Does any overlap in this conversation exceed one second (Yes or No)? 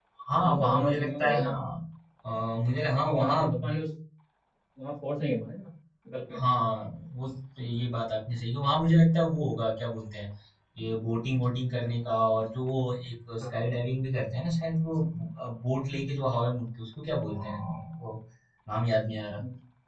Yes